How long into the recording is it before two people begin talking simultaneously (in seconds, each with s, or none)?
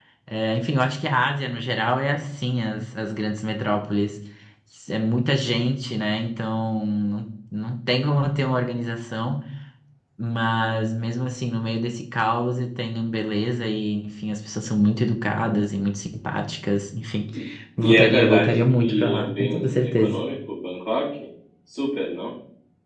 17.8 s